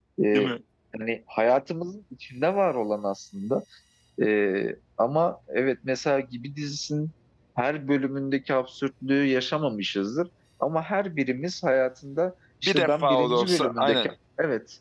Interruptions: present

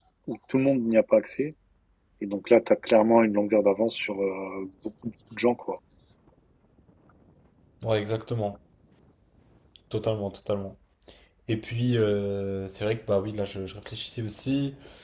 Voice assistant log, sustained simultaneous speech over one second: none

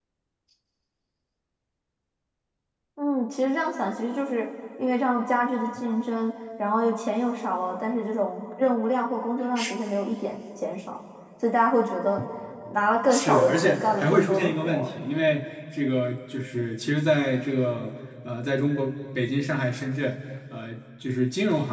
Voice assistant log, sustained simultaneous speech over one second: present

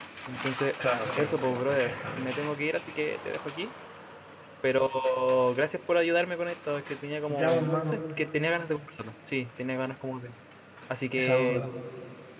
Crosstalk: present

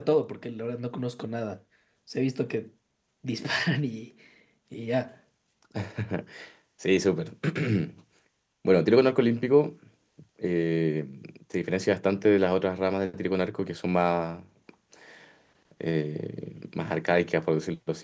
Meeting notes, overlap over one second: none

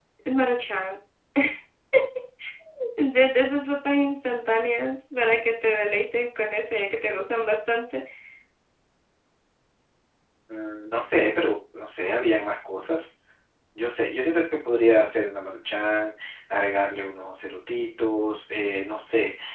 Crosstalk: none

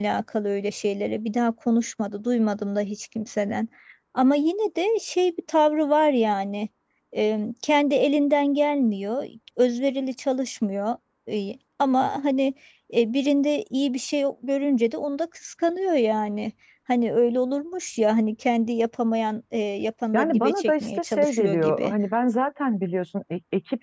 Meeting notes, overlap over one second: present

